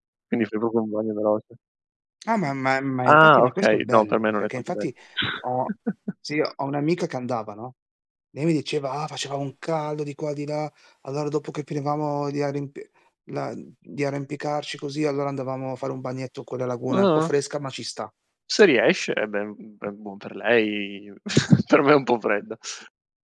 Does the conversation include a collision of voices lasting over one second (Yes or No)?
Yes